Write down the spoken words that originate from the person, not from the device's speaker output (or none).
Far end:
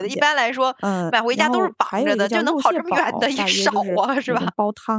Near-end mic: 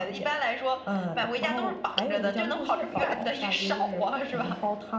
none